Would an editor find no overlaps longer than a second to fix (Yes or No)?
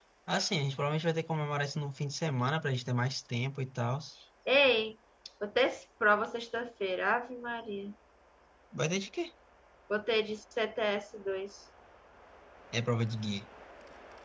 Yes